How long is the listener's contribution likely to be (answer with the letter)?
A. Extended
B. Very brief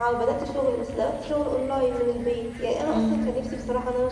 B